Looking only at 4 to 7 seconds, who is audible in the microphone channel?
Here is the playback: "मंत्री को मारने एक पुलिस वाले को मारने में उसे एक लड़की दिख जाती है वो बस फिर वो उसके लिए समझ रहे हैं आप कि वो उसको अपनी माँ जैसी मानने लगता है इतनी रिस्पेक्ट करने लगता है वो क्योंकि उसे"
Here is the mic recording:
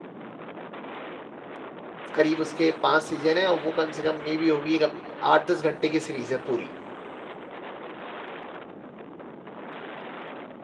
user only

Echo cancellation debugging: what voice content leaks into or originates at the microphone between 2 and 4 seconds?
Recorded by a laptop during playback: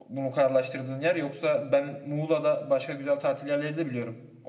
user only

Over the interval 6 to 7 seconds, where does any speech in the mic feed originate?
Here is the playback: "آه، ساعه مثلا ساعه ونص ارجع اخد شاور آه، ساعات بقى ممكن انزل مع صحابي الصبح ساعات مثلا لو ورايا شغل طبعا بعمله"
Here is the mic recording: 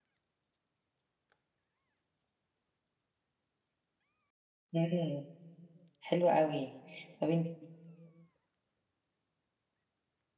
user only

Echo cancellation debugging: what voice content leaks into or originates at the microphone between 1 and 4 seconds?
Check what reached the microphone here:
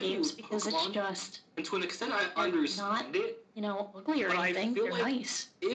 echo only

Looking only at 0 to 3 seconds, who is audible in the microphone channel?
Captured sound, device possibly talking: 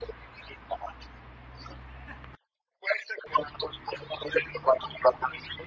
echo only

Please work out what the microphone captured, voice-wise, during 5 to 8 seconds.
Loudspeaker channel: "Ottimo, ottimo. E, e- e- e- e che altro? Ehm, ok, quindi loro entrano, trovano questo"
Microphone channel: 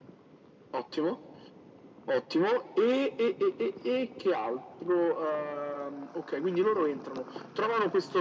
echo only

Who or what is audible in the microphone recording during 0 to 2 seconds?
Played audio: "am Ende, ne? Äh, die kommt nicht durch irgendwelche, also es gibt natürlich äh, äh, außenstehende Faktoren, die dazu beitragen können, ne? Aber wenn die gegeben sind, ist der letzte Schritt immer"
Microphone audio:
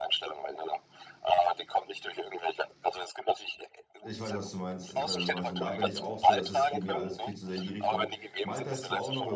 echo only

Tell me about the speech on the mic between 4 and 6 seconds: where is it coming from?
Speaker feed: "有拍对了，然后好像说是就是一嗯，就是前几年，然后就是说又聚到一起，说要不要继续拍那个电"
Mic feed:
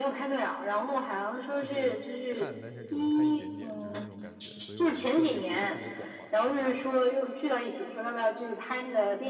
both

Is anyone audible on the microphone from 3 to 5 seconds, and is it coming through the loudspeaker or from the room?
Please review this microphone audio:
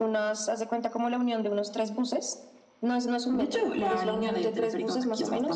echo only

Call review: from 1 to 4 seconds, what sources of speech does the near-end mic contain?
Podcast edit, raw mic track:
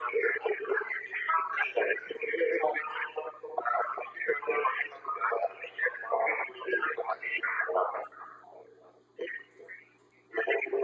echo only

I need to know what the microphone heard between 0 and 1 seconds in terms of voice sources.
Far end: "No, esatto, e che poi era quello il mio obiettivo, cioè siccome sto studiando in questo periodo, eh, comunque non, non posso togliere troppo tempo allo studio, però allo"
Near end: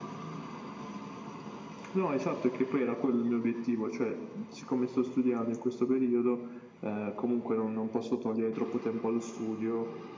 neither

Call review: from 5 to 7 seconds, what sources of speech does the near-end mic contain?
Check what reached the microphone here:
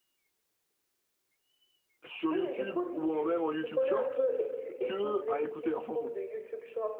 both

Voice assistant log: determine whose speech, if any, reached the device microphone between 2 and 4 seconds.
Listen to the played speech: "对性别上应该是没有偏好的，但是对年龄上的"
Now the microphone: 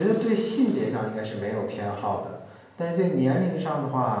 echo only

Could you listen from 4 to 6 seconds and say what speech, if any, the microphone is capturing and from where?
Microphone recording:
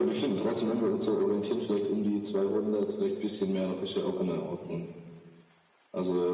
echo only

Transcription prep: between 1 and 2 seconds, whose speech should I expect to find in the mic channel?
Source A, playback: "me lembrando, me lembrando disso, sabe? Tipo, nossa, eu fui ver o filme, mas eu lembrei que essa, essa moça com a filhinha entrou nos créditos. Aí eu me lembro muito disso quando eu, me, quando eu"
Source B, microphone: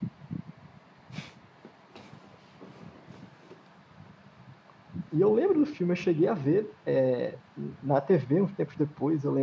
neither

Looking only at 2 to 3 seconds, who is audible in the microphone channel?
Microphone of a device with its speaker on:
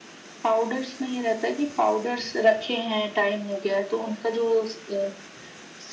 echo only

